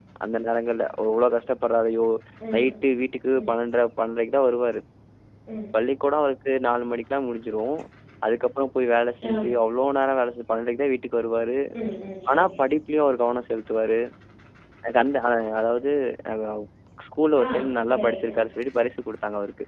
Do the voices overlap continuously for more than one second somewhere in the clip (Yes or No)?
No